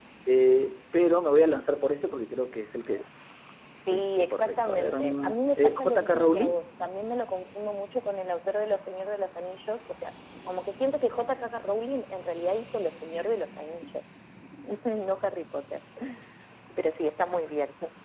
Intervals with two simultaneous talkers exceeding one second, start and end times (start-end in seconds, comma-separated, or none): 3.9-6.6